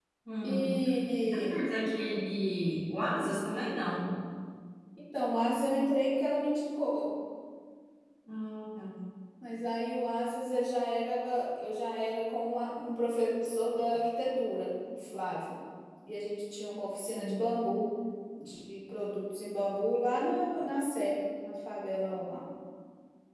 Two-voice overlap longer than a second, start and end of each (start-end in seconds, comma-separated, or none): none